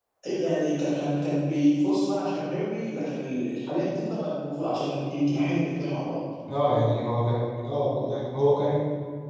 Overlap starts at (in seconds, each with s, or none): none